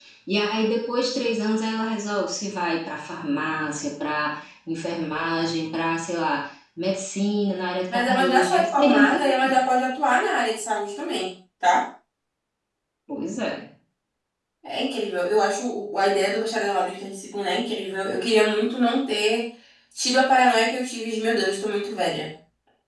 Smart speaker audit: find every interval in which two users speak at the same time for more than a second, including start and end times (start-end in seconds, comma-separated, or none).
7.9-9.5